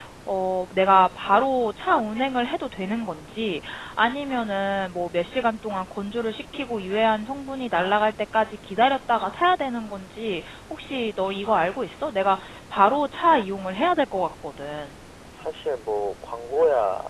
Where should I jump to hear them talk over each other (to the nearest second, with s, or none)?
none